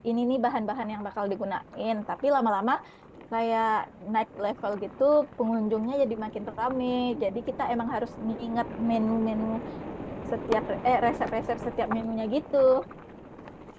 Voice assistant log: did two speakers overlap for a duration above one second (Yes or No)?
No